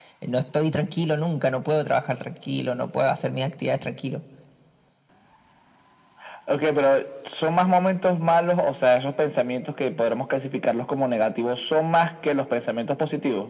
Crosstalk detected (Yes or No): No